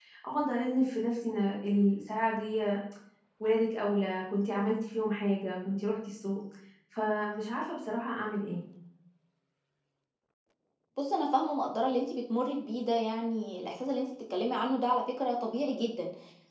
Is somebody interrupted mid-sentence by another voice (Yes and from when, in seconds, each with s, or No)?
No